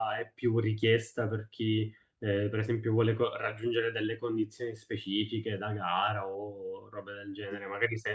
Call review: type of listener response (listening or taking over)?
listening